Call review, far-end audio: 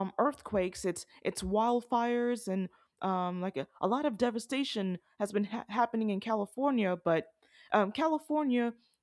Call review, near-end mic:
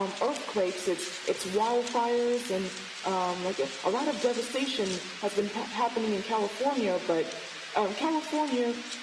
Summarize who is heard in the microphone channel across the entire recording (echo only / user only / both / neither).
echo only